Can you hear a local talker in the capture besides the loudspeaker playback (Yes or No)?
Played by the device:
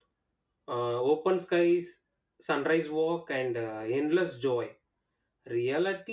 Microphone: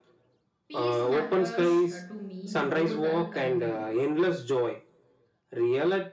Yes